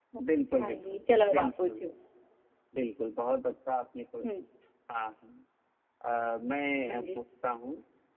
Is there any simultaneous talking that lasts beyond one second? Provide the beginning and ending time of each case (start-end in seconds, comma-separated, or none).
0.6-1.9